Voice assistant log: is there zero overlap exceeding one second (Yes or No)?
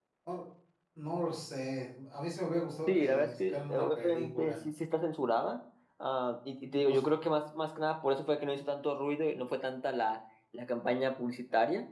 No